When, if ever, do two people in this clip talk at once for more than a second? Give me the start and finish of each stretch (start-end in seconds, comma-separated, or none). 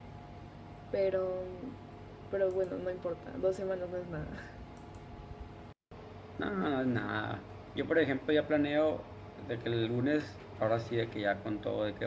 none